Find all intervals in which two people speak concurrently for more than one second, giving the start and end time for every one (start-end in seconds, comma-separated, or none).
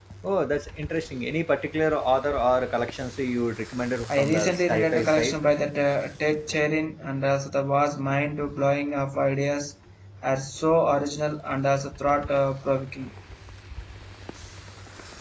4.2-5.4